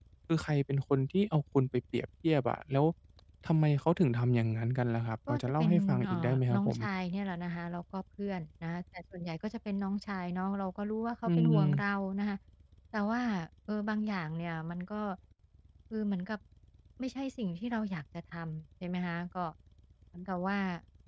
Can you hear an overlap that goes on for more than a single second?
Yes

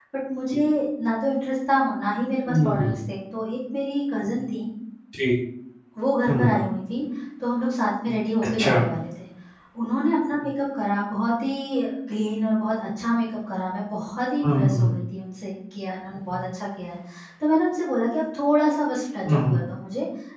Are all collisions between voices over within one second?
Yes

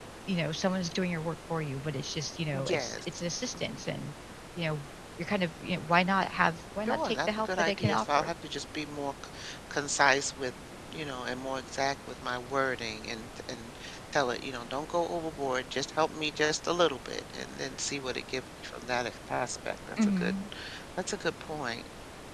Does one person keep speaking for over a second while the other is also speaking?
Yes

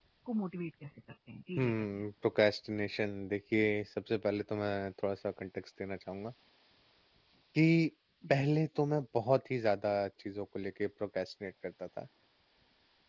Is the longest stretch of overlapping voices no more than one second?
Yes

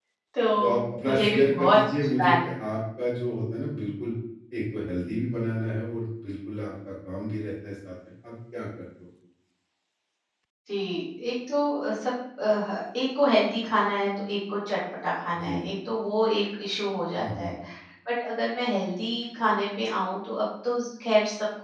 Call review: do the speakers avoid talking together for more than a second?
No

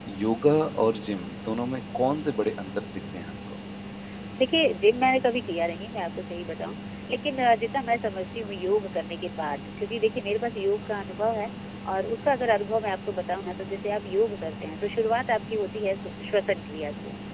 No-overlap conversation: Yes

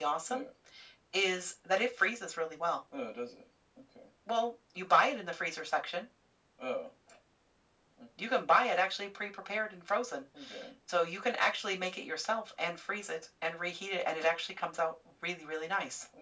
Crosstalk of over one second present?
No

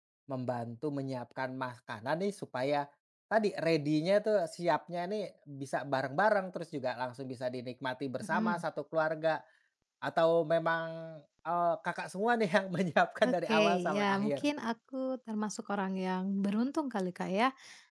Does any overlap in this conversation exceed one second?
Yes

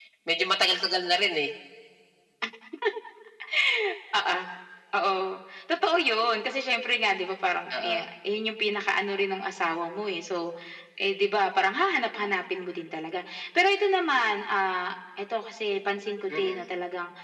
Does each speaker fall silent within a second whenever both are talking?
Yes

